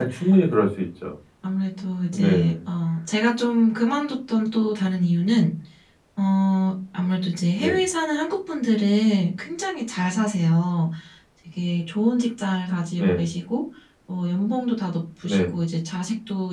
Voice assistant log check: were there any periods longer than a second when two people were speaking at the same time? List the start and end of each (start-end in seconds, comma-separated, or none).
none